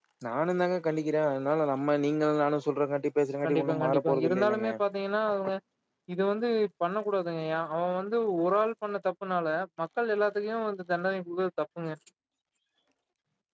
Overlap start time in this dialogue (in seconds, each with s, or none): 3.4 s